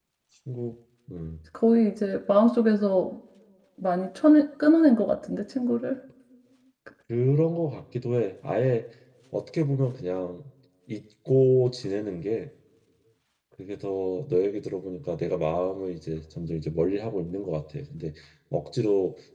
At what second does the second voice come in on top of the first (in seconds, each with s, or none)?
none